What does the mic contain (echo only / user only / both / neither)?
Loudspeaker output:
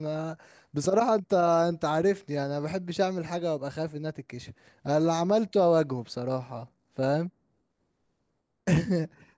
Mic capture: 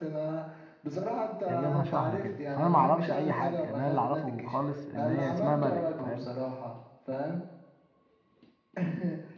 both